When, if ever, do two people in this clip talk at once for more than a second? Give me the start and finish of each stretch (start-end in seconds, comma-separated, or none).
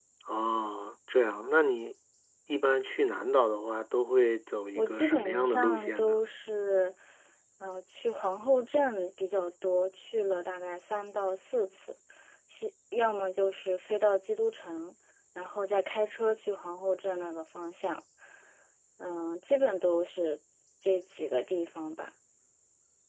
4.8-6.2